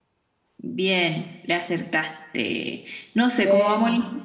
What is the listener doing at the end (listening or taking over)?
listening